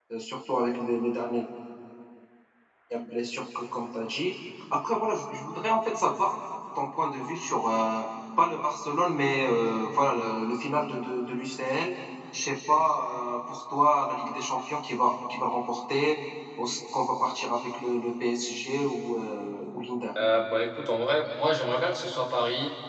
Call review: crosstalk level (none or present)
none